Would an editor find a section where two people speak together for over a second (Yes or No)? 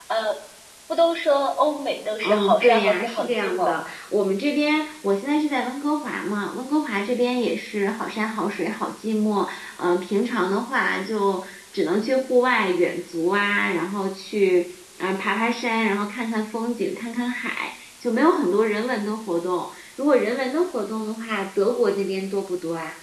Yes